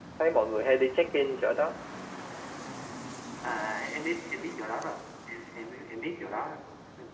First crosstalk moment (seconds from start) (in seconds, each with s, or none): none